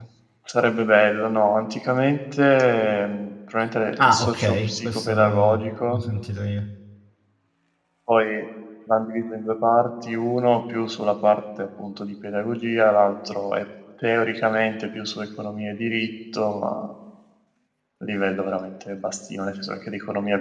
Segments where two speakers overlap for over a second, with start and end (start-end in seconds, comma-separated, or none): 4.0-6.0